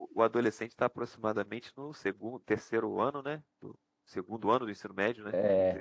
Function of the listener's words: taking over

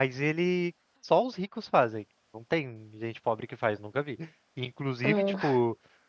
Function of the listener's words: listening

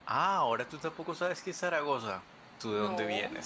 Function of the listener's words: listening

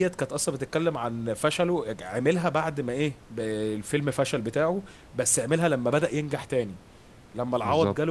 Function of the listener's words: listening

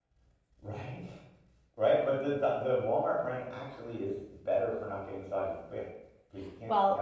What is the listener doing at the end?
taking over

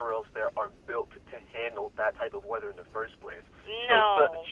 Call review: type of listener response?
listening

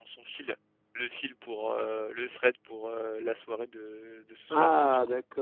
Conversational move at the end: taking over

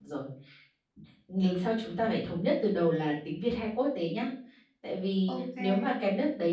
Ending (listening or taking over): listening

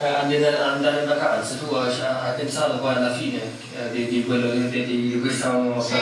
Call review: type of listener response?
taking over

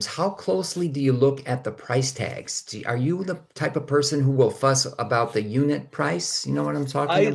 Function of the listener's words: taking over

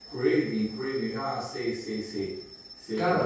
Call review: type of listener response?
taking over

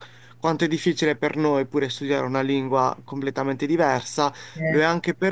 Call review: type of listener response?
listening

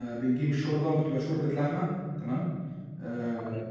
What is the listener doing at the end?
taking over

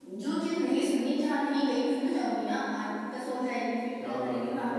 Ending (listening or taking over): taking over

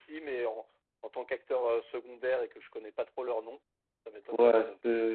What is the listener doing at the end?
taking over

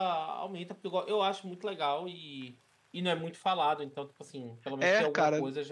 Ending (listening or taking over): taking over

